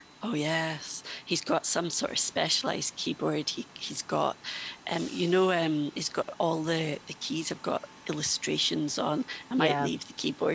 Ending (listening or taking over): listening